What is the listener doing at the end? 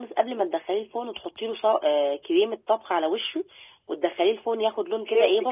taking over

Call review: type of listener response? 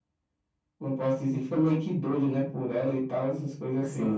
taking over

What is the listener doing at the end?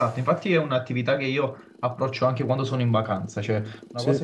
listening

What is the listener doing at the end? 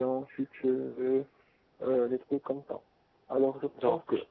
listening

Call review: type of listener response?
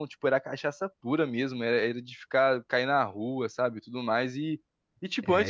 listening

